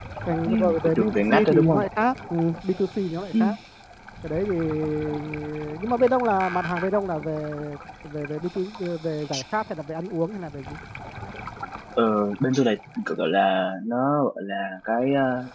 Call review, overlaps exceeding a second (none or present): present